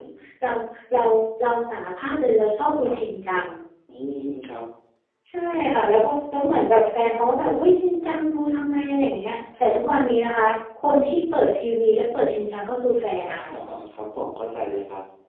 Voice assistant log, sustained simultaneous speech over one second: none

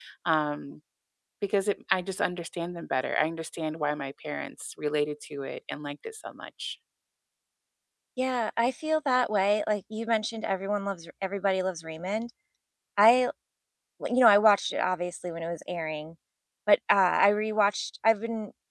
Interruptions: none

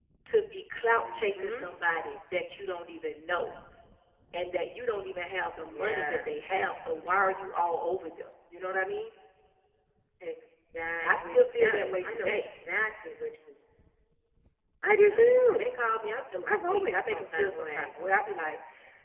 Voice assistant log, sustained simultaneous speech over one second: present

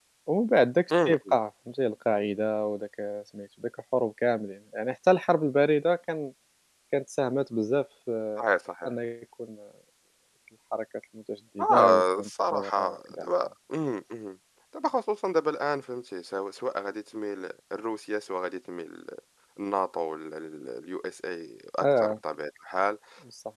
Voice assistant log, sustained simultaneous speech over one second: present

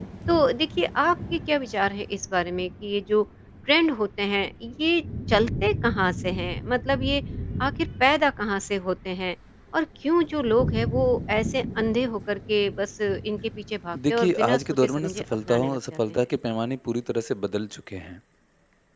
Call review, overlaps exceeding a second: present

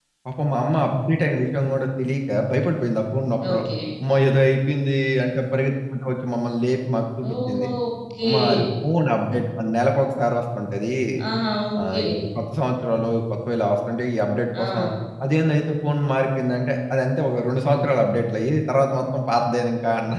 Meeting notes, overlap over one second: none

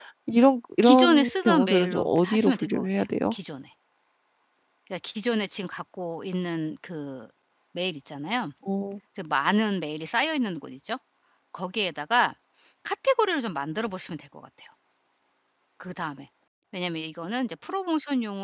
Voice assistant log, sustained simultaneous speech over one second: present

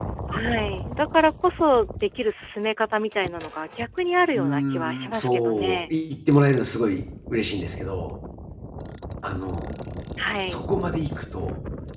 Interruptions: present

